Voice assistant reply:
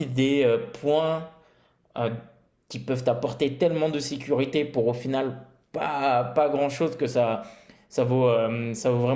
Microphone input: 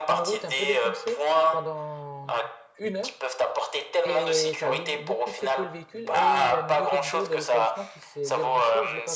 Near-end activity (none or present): present